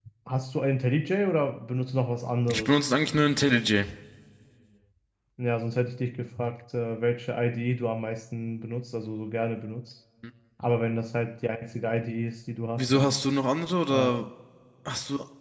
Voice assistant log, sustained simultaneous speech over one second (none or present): none